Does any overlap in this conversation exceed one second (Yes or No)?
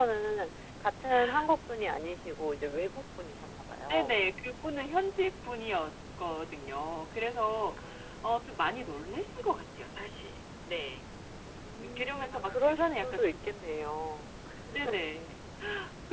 Yes